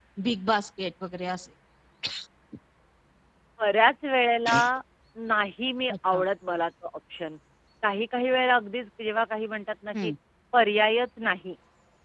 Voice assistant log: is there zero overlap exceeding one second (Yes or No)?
Yes